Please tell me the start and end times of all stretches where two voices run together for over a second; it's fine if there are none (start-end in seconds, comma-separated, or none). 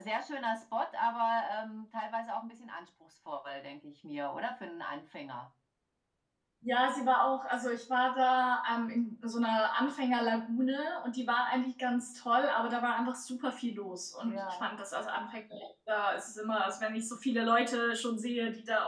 none